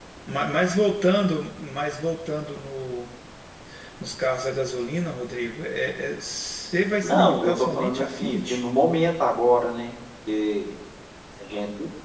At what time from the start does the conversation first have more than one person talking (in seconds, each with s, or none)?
7.0 s